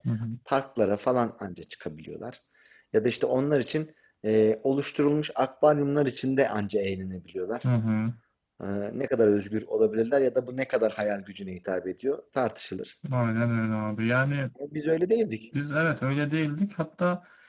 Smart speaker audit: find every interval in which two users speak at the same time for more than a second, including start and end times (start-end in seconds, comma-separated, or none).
none